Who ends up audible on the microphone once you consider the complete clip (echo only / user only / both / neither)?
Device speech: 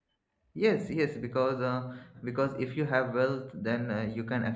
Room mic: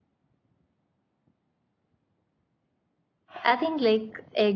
user only